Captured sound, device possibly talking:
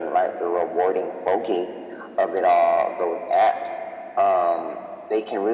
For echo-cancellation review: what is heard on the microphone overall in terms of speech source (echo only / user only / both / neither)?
echo only